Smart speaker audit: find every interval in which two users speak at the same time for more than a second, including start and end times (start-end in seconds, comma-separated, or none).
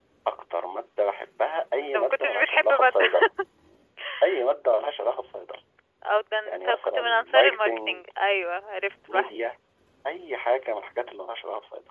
1.8-3.0, 6.5-8.0